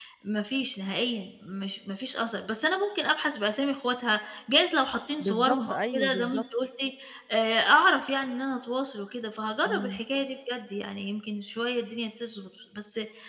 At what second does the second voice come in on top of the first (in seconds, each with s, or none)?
5.2 s